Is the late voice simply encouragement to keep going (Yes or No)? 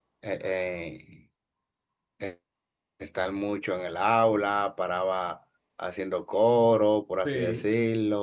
Yes